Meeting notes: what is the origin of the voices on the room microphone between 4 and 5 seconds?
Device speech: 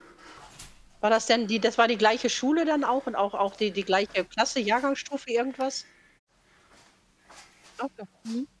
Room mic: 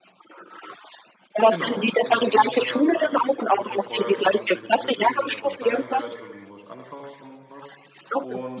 both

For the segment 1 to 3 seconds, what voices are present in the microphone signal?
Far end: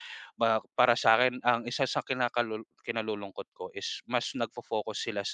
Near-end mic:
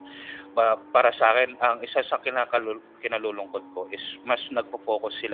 echo only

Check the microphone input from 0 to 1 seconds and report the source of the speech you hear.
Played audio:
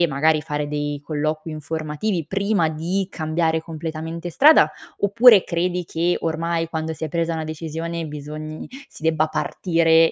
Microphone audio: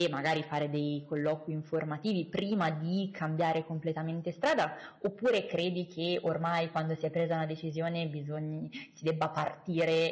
echo only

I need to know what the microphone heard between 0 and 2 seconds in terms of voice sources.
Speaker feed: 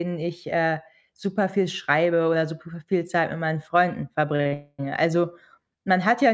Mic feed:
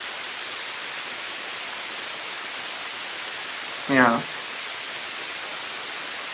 neither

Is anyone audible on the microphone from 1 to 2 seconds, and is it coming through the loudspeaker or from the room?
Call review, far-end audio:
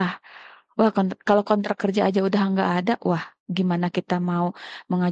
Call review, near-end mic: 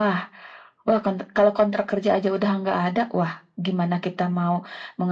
echo only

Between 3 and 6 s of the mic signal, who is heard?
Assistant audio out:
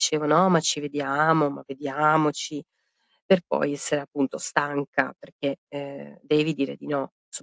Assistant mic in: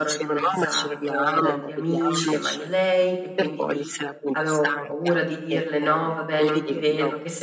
both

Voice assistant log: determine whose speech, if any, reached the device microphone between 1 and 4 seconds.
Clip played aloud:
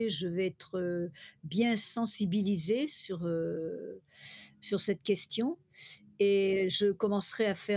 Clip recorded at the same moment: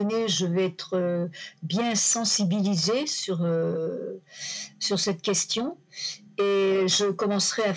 echo only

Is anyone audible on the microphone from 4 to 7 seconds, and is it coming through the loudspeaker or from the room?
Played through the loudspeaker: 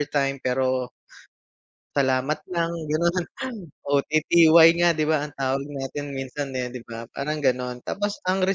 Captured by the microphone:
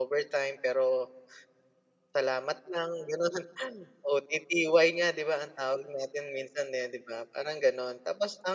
echo only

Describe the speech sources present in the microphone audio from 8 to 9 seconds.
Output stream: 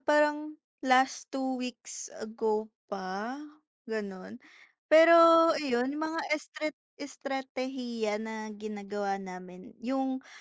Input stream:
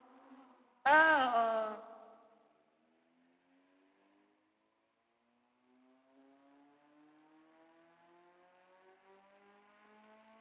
neither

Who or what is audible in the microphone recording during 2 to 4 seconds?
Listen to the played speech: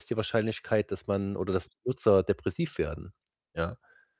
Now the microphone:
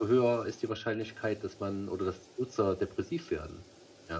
echo only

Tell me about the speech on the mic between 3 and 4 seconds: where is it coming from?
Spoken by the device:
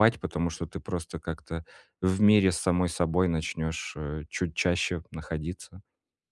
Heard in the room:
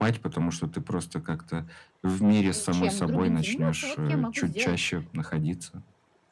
both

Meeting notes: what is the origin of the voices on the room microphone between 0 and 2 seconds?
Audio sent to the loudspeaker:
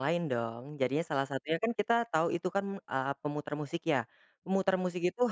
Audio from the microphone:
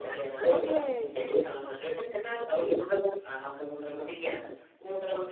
both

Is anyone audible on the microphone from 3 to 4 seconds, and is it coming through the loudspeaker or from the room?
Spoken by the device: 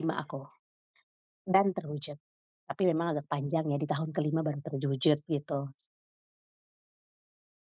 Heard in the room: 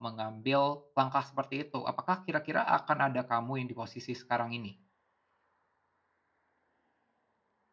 user only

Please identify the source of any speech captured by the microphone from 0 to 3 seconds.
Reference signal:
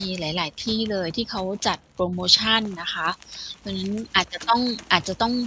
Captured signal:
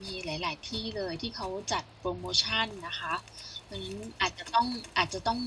echo only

